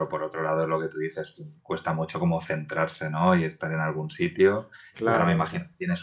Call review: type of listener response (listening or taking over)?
listening